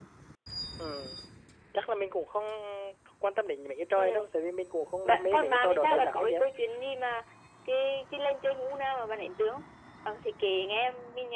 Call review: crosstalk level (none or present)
present